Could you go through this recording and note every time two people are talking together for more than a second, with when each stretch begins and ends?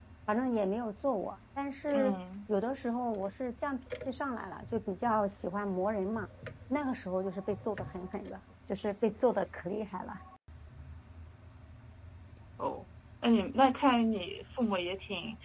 none

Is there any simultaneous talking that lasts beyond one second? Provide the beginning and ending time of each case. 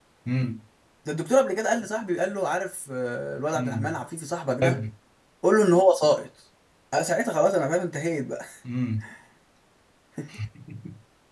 none

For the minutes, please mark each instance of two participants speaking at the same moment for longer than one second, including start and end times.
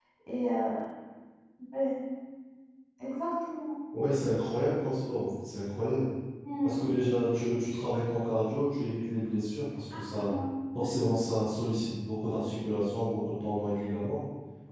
none

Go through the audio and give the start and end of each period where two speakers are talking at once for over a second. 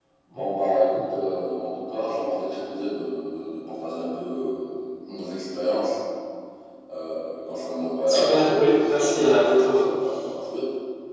8.0-9.8

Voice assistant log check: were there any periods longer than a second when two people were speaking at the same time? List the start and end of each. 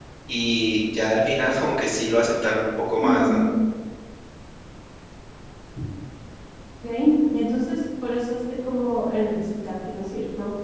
none

